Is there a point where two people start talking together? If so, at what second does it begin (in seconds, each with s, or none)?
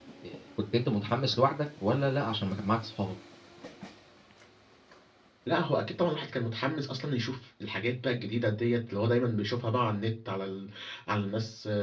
none